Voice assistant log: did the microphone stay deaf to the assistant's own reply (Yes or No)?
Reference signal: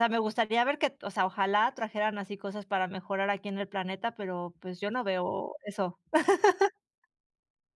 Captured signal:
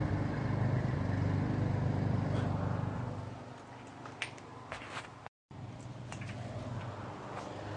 Yes